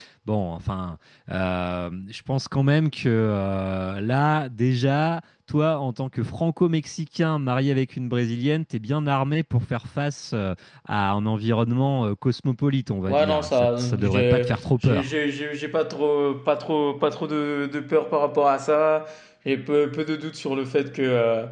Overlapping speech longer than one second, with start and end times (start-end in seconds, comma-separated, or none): 13.1-15.0